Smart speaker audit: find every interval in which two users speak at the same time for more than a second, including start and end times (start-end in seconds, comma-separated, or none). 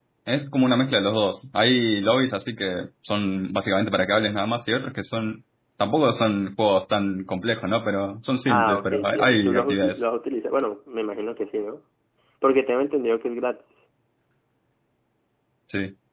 8.5-10.0